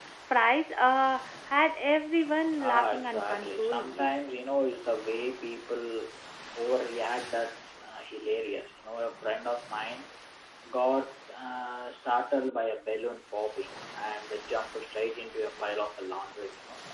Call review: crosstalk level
present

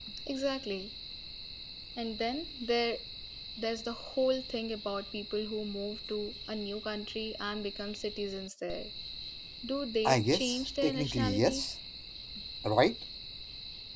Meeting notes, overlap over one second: present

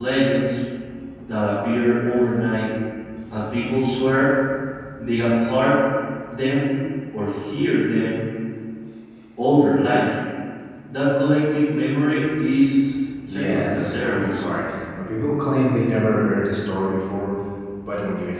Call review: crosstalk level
present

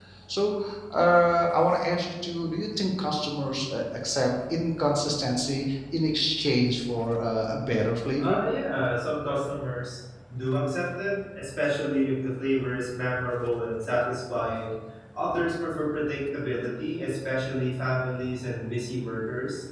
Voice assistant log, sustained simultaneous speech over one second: none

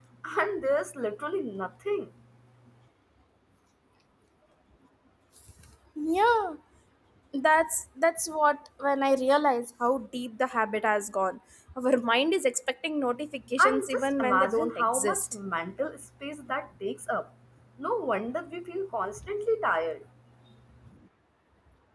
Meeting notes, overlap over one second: present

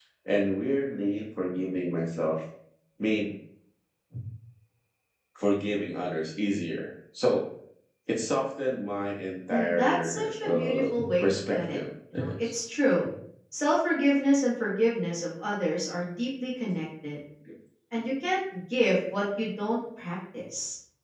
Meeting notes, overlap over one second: present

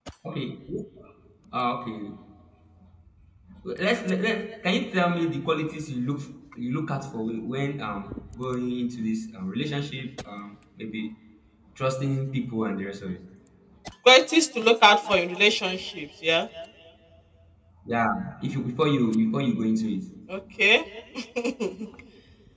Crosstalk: none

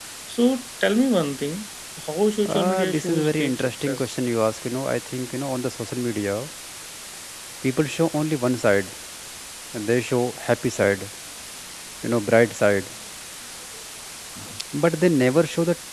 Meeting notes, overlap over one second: present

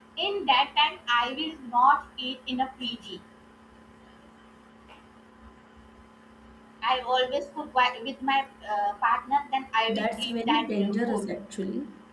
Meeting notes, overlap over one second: present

